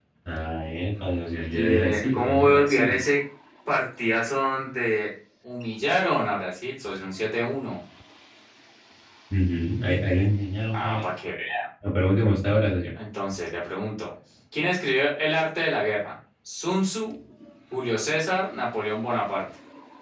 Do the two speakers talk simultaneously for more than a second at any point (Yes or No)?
Yes